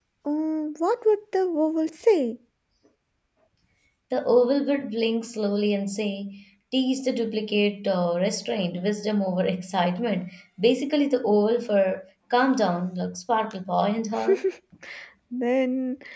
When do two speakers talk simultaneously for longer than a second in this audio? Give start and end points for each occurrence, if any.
none

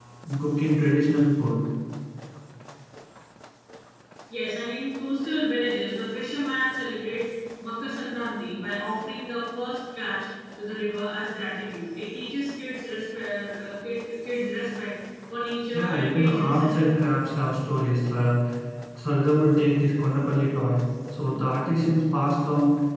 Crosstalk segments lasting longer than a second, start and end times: 15.7-17.0

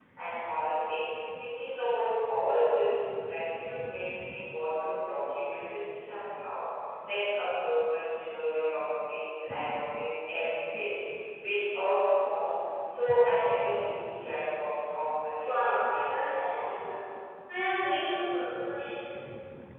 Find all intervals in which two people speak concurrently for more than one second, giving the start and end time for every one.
15.4-16.7

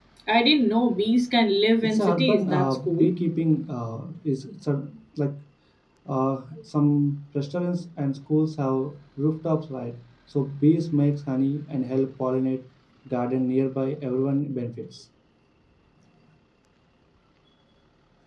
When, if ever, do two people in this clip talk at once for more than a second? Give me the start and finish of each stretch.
1.8-3.1

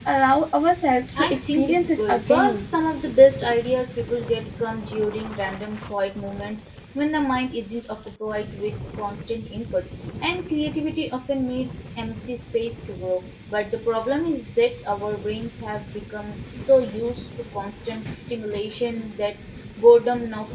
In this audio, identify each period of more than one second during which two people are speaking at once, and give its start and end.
1.2-2.7

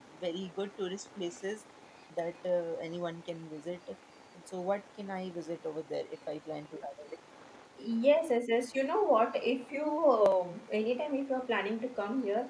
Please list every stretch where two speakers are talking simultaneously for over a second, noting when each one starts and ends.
none

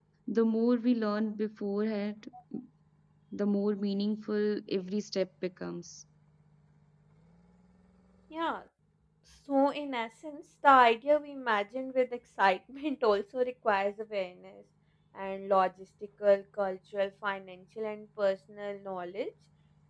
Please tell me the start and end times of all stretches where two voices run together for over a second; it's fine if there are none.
none

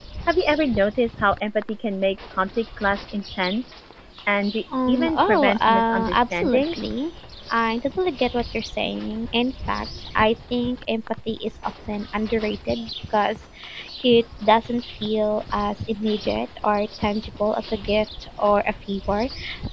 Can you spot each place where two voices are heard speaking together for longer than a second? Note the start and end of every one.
4.9-6.9

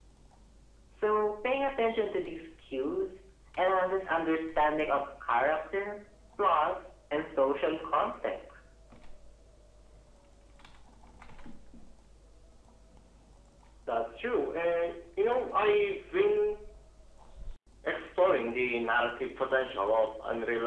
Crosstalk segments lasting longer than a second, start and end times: none

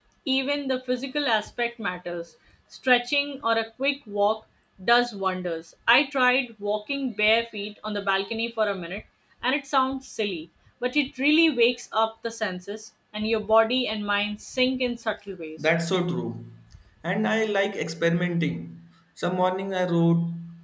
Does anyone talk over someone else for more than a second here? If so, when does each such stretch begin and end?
none

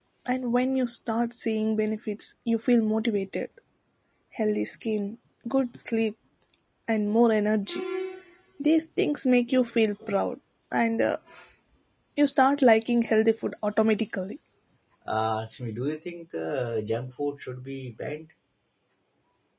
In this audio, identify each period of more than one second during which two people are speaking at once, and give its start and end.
none

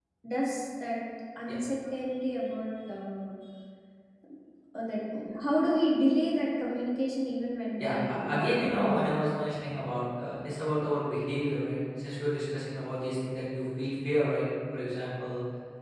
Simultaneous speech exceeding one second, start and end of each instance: 7.8-9.0

